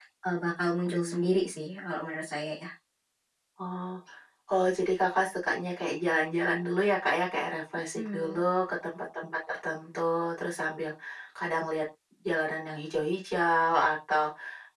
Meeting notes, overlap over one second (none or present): none